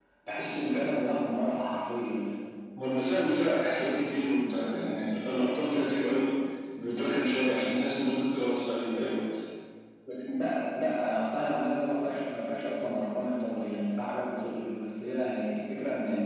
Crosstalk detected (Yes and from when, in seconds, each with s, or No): No